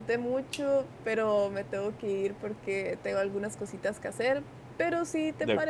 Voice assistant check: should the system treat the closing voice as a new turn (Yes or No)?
No